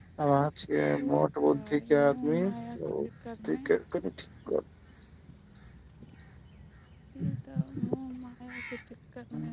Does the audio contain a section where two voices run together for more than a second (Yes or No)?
Yes